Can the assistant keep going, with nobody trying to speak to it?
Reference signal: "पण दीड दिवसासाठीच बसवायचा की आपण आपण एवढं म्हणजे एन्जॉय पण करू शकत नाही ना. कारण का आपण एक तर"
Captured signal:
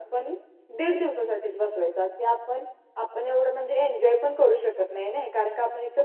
Yes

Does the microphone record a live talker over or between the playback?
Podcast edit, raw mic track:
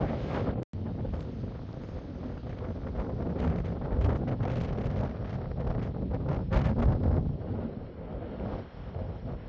No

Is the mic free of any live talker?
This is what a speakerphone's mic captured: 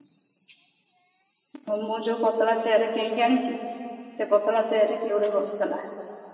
No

